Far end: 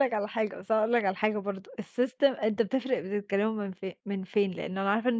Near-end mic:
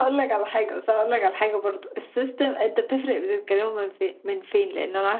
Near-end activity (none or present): none